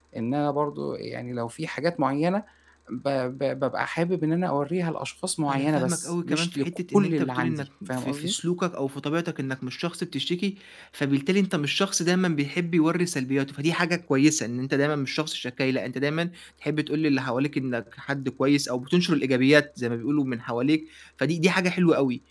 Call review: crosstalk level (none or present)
present